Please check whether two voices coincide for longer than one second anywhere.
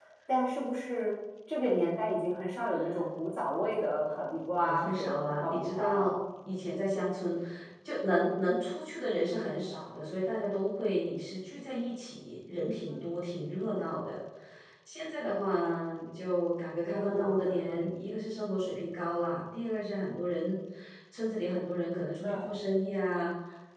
Yes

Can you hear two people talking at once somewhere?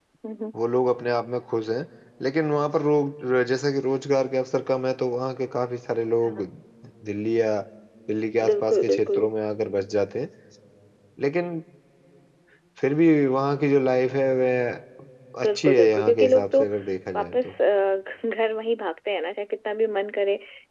Yes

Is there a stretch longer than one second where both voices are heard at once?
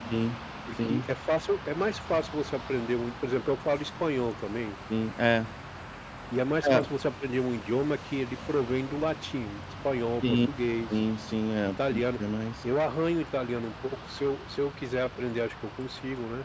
No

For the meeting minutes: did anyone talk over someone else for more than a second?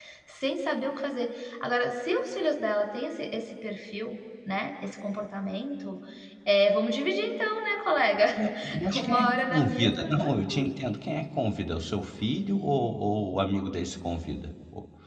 Yes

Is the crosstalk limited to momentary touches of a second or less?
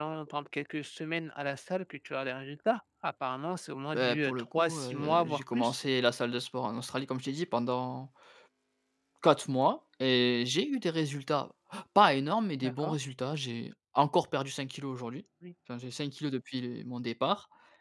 No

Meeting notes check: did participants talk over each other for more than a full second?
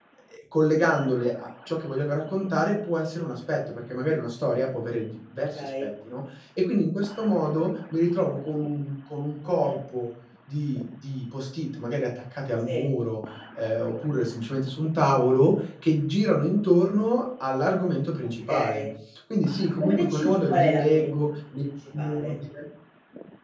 Yes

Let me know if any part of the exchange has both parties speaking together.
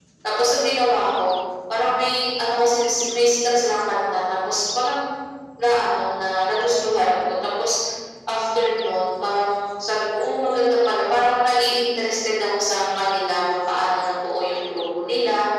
No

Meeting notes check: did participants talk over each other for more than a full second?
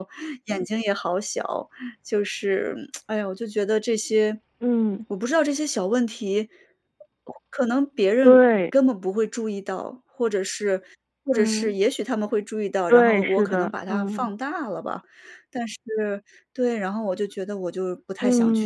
Yes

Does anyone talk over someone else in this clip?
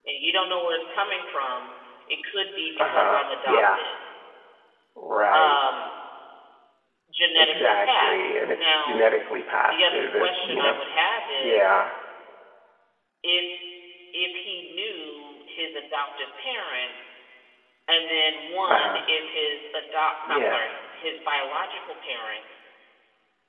Yes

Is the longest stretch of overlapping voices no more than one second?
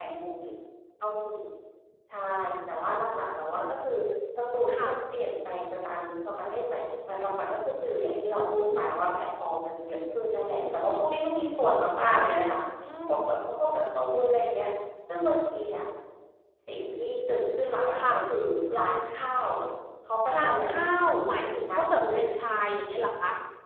No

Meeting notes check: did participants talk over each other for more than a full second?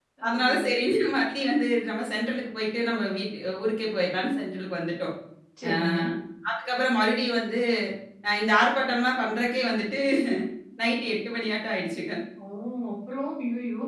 No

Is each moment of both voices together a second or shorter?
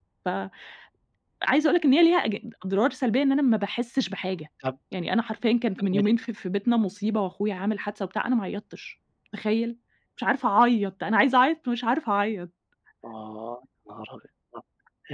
Yes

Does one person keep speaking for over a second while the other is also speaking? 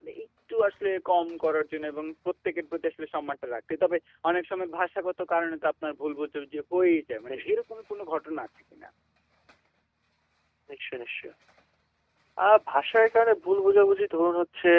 No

